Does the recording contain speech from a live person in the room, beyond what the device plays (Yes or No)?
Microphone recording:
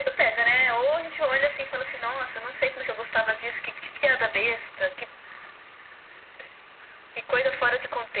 No